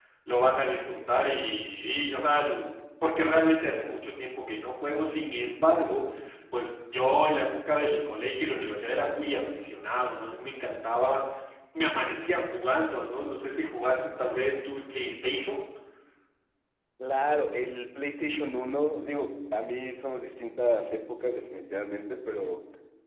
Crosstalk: none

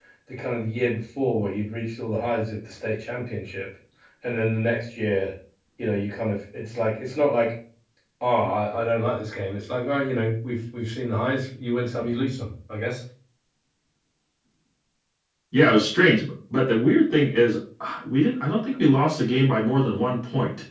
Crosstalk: none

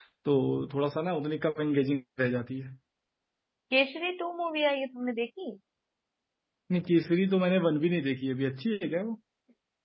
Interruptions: none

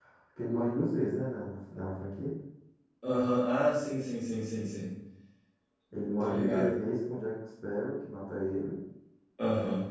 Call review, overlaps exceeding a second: none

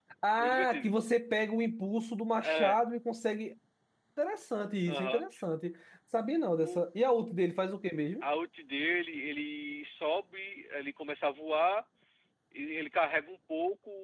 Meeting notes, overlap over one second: none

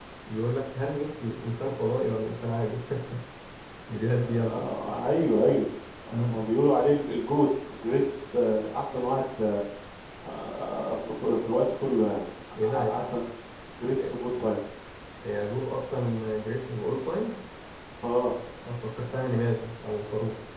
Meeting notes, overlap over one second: none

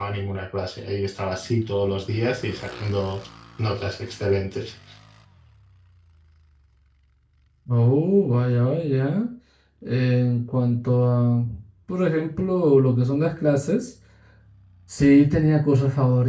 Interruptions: none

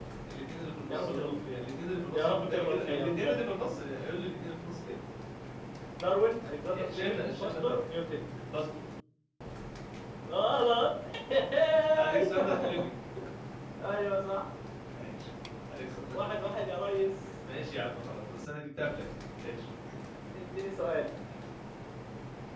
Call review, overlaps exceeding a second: present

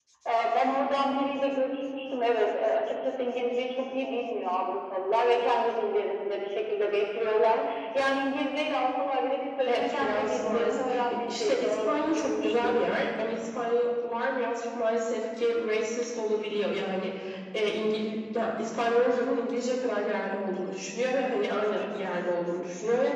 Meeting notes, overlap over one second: present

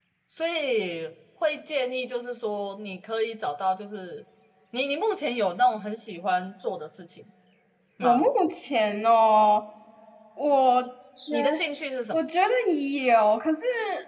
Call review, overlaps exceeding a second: none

